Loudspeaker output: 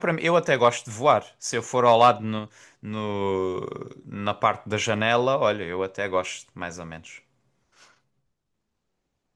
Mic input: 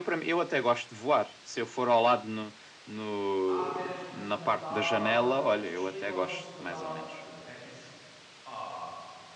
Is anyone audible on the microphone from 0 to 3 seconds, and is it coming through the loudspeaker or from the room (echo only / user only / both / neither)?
echo only